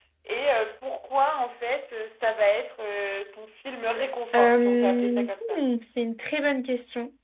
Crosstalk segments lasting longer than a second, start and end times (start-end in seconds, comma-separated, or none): 4.3-5.6